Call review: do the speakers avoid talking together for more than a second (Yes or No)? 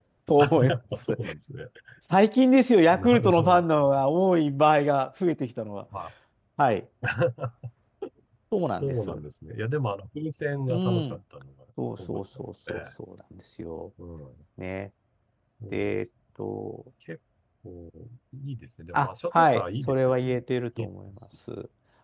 No